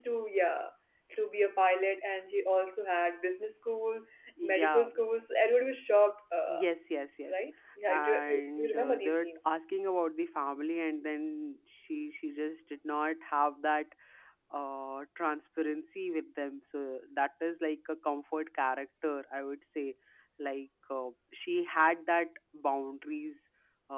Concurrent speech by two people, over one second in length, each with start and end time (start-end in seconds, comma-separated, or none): 7.9-9.3